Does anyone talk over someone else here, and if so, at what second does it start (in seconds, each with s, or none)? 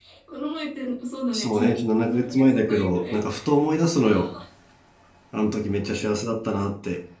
1.3 s